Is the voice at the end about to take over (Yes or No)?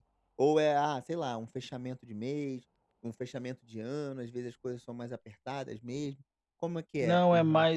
Yes